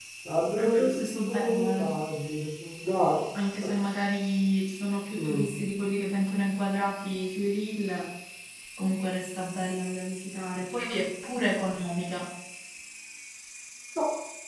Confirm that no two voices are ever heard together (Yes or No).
No